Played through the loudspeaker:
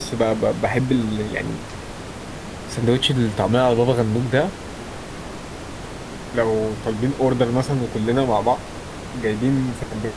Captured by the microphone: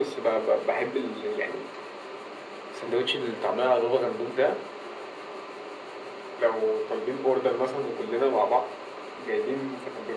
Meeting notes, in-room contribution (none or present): none